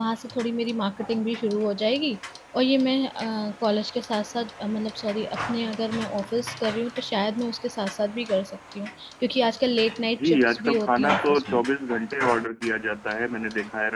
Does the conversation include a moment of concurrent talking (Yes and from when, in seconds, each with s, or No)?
Yes, from 10.2 s